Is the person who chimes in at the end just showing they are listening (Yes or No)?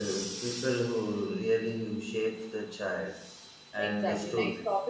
No